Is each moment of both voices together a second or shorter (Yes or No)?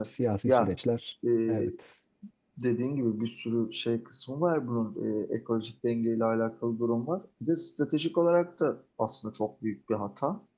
Yes